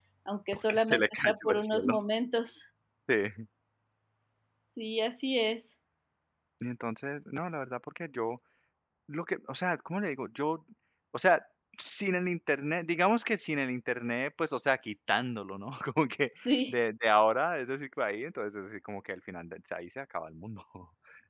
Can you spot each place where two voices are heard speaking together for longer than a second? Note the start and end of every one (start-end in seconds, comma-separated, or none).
0.5-1.9